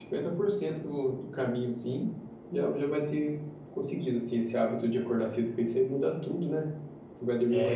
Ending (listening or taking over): listening